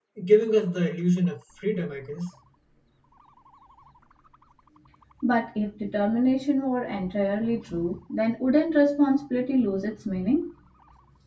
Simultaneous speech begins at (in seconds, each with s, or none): none